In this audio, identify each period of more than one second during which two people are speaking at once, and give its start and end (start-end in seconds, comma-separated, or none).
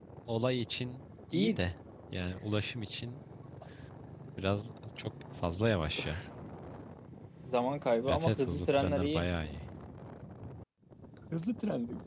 8.1-9.3